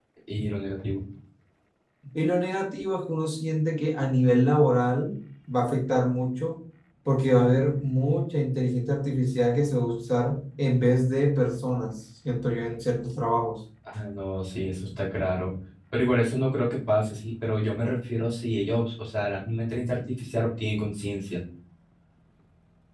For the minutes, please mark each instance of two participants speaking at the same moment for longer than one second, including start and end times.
none

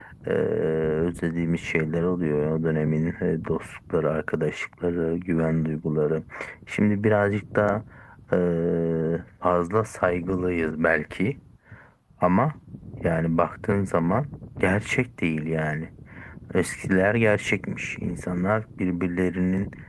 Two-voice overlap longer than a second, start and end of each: none

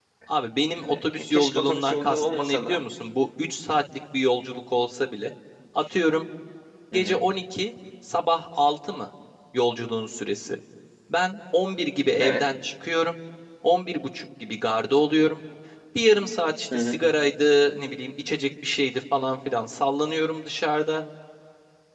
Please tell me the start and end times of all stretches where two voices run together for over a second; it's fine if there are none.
0.8-2.8

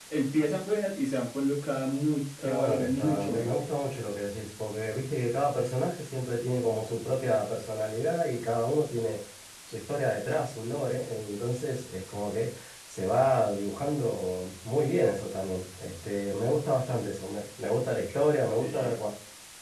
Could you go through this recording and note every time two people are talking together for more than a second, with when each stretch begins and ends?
2.4-3.6

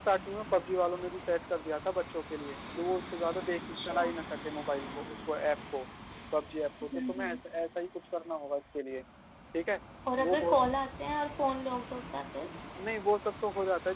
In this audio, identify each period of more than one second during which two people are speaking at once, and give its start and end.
none

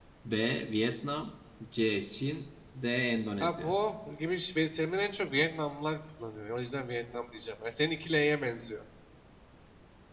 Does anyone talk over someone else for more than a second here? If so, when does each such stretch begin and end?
none

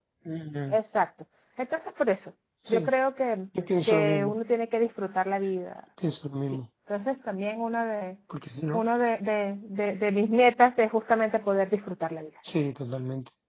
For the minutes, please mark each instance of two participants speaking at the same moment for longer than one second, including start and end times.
none

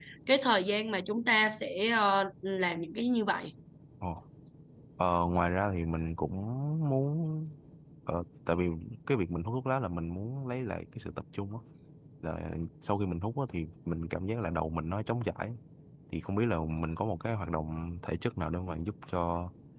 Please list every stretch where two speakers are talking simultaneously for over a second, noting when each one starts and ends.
none

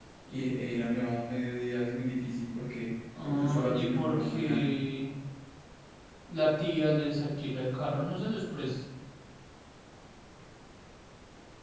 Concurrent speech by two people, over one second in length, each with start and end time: 3.2-4.7

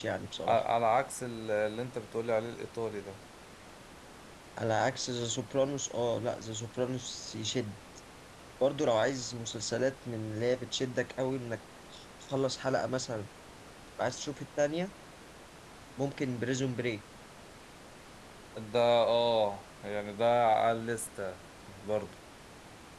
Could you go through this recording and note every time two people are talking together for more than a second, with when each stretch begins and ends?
none

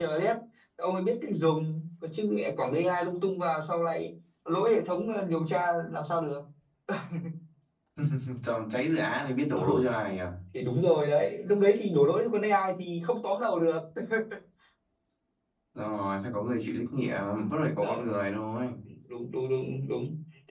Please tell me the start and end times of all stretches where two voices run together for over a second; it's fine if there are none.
none

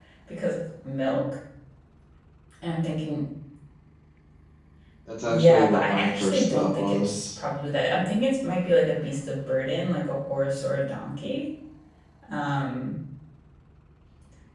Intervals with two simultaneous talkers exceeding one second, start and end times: 5.3-7.3

